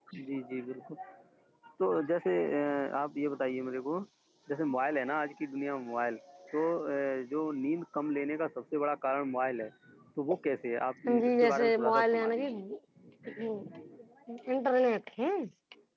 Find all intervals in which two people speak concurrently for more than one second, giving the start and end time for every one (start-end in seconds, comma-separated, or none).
11.2-12.4